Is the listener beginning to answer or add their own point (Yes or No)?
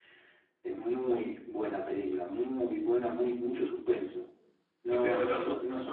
No